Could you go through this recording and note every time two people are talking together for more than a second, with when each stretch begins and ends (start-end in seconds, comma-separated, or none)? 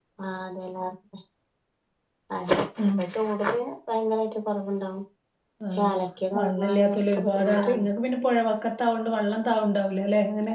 6.4-7.8